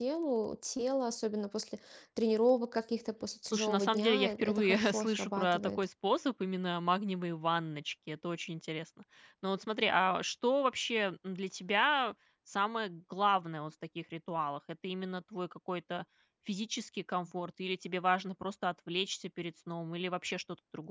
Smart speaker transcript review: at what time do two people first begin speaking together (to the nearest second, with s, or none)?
3 s